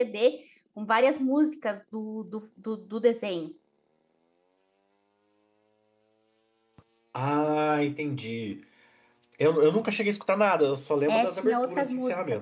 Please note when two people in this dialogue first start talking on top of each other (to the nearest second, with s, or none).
11 s